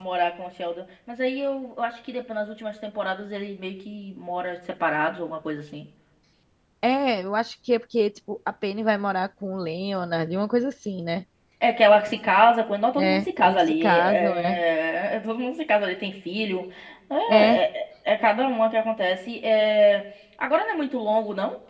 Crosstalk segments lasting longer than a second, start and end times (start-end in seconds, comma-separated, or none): 13.0-14.6